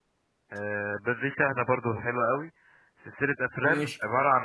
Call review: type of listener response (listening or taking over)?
listening